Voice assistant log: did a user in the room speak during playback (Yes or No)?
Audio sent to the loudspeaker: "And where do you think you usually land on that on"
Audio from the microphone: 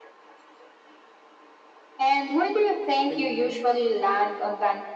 Yes